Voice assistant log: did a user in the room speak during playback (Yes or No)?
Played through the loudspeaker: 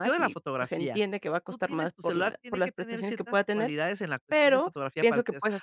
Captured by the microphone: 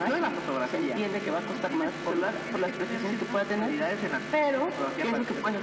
No